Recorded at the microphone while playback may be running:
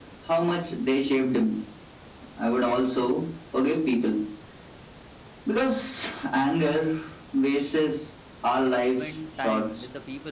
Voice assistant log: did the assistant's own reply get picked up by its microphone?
Yes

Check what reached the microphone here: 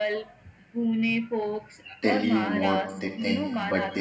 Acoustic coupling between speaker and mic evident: Yes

